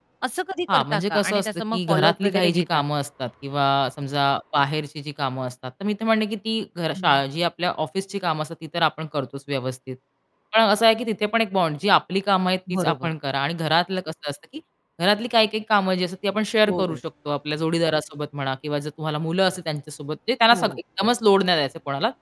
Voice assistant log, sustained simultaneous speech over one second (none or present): present